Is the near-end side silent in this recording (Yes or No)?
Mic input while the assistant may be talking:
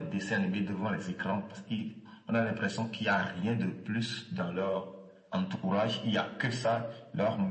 Yes